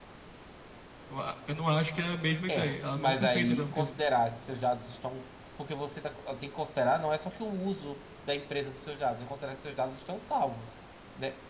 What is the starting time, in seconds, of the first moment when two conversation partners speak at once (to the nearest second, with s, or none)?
2 s